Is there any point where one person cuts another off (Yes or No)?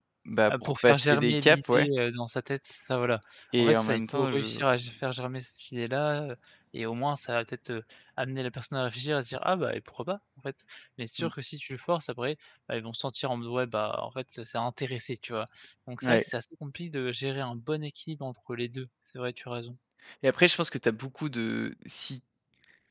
Yes